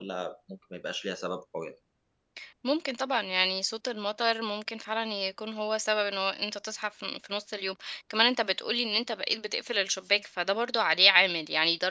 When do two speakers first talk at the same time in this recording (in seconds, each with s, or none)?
none